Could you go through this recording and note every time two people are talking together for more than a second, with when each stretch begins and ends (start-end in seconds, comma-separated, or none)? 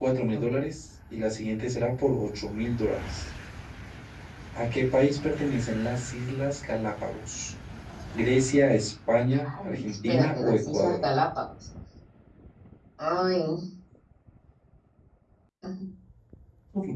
9.5-11.0